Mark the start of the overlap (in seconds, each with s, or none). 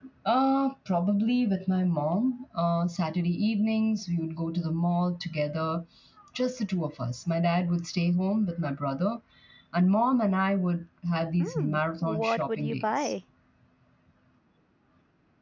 11.4 s